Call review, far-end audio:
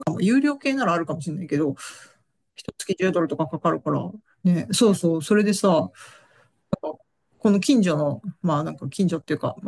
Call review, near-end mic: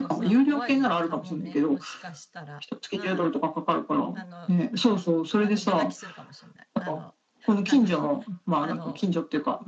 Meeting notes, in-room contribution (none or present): present